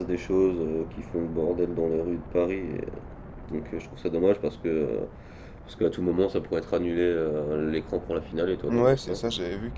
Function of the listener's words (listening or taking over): taking over